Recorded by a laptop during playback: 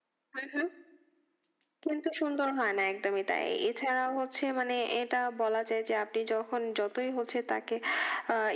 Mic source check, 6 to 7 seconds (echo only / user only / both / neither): echo only